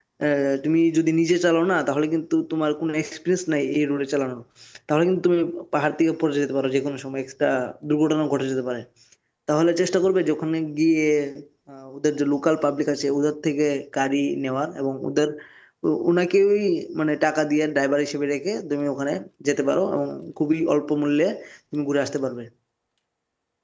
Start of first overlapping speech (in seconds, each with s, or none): none